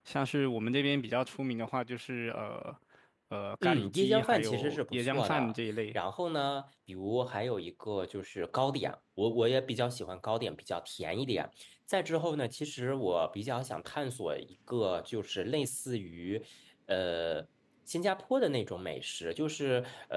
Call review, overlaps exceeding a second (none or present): present